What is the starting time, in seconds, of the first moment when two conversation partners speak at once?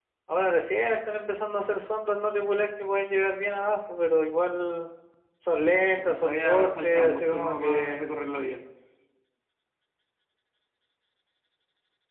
5.9 s

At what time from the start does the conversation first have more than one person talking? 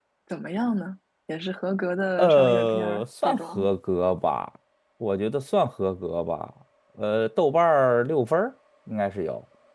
2.2 s

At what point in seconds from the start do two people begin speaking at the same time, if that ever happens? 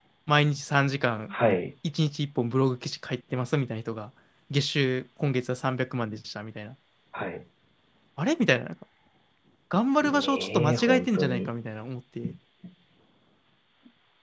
10.0 s

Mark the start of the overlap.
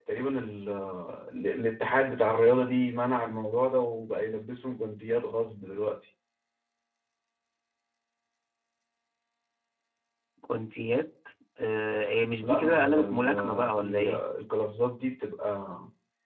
12.4 s

